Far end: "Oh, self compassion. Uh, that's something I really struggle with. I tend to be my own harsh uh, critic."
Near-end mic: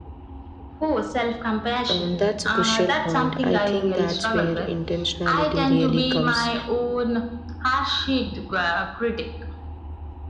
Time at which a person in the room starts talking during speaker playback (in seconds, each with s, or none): 1.9 s